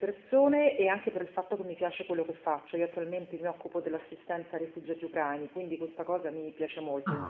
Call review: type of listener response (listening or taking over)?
taking over